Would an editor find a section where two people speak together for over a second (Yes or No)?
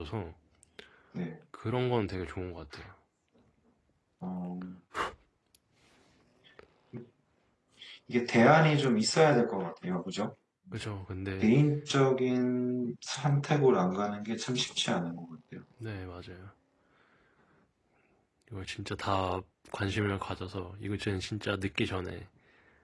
No